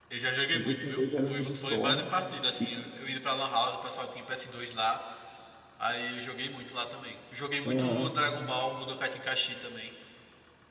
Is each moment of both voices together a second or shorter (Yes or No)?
No